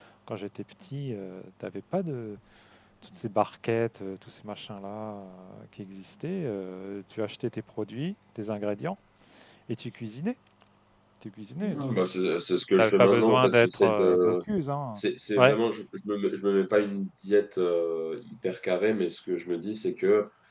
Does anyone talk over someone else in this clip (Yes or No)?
Yes